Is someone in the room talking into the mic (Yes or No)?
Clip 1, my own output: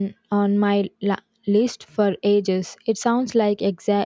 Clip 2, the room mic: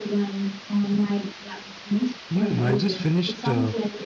Yes